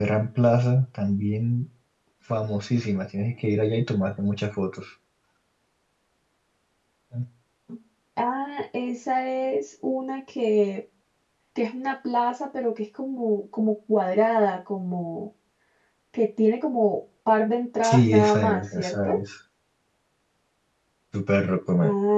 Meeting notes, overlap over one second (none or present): present